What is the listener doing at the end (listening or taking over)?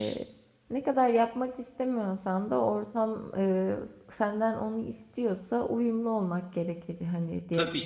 taking over